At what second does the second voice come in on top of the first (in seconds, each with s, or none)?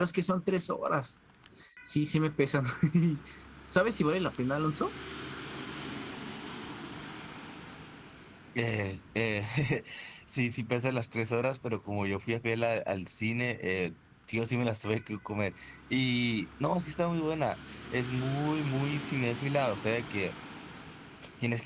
none